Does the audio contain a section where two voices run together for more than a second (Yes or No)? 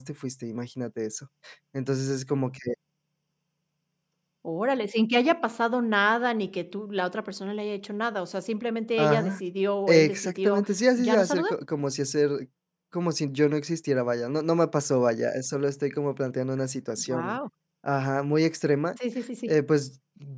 Yes